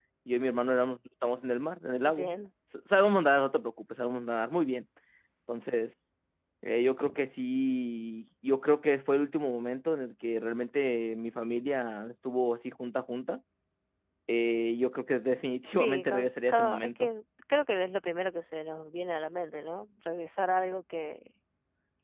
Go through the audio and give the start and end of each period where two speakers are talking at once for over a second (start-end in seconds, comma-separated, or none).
15.8-17.1